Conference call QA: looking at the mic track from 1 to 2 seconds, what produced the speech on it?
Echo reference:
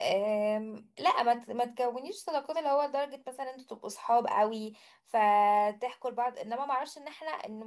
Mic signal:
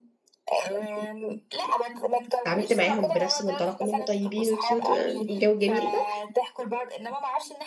echo only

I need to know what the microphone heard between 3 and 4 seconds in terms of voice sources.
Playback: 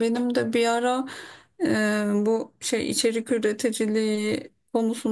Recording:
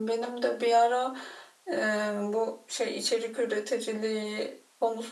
echo only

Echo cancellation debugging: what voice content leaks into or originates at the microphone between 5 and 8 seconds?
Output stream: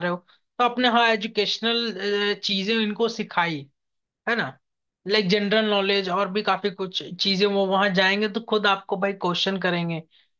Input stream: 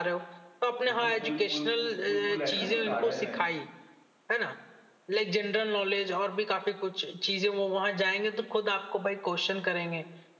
echo only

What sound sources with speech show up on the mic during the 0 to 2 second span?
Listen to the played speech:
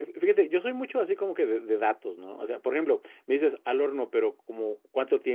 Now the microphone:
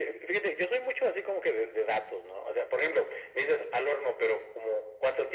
echo only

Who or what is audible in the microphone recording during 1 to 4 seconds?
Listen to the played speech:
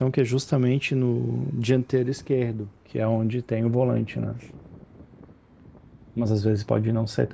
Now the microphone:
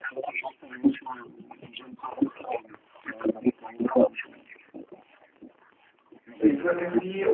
echo only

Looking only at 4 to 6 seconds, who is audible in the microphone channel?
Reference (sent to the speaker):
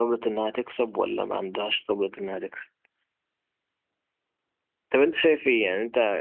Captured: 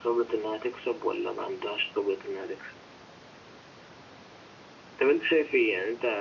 echo only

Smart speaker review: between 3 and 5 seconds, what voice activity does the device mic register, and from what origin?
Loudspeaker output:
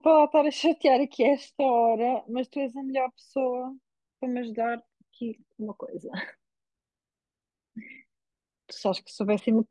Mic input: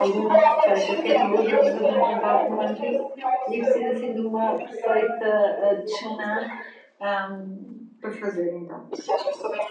both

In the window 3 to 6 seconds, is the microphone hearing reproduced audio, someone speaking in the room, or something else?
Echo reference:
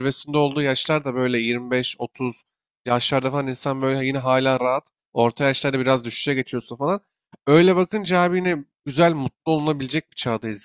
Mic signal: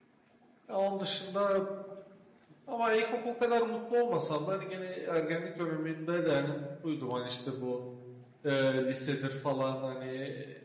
user only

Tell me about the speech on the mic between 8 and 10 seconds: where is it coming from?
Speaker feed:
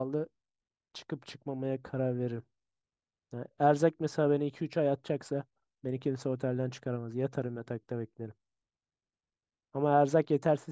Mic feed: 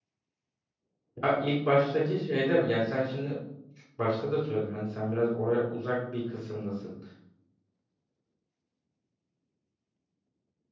neither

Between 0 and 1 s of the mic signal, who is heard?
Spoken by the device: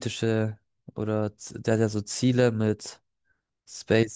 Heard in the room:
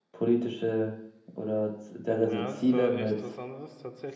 echo only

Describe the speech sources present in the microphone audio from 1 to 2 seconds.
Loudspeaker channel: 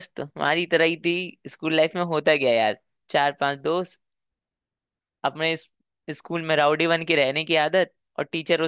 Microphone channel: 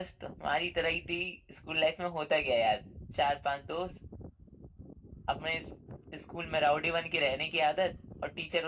echo only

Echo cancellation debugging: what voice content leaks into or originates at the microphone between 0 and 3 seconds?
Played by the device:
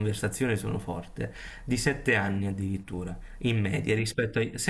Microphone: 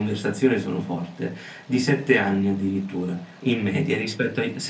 echo only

